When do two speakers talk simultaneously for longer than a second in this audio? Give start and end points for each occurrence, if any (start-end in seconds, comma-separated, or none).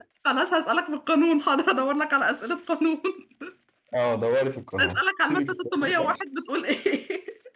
4.8-6.2